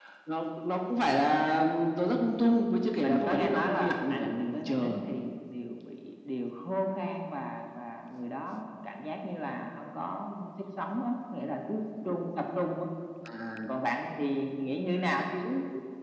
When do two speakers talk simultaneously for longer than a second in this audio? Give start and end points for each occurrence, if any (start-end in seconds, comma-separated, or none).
3.0-5.0